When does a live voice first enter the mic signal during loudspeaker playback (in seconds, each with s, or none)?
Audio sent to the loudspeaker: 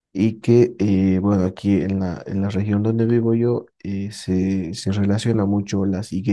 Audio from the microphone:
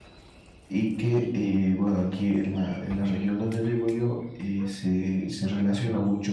none